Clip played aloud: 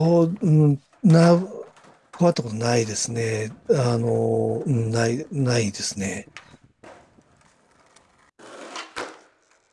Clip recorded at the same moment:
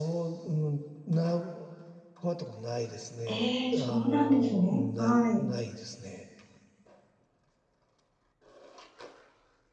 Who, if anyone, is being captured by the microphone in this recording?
both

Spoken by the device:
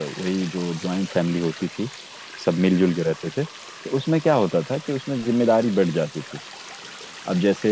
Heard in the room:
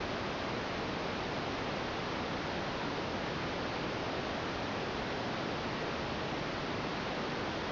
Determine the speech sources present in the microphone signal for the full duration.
neither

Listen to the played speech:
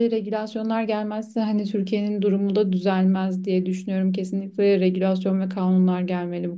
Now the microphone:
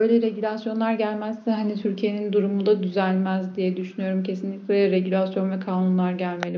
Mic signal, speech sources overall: echo only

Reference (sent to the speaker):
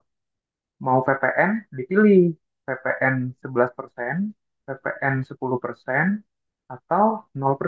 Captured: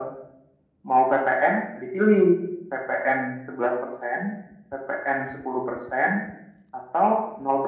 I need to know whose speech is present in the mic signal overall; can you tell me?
echo only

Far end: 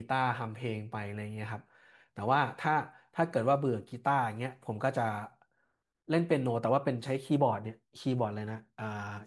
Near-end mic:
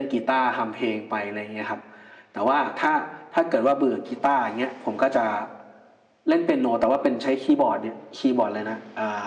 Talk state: echo only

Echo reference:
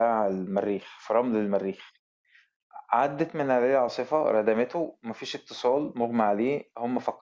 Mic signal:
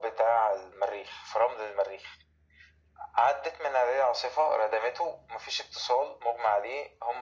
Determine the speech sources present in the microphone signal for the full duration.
echo only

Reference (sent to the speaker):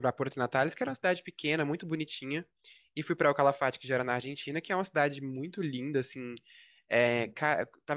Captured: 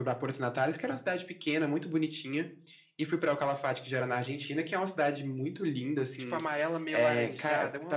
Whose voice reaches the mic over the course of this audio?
both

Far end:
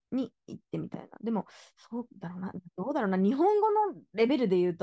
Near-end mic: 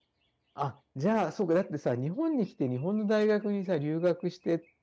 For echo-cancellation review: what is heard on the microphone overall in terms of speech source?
user only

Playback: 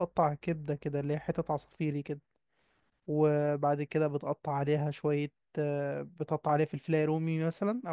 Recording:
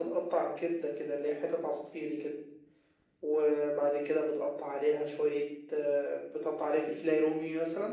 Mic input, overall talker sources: echo only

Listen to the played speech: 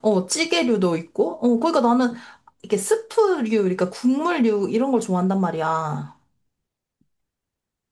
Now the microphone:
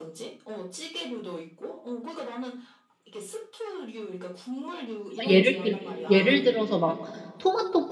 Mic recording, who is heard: both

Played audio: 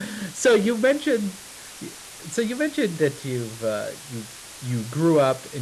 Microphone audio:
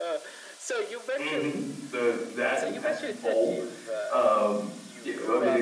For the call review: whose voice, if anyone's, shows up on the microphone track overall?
both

